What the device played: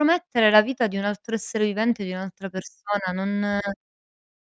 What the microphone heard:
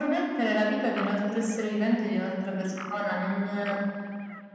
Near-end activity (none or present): none